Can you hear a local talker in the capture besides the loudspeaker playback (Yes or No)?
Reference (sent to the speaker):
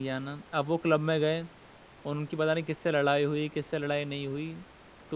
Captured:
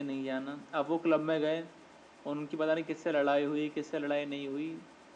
No